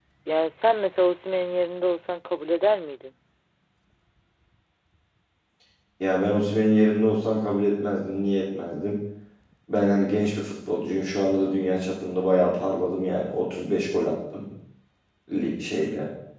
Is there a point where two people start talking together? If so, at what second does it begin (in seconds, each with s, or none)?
none